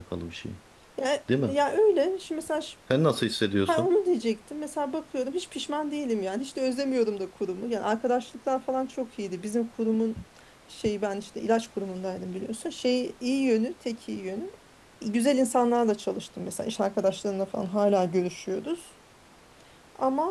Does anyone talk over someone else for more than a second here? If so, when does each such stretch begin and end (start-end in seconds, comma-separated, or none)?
none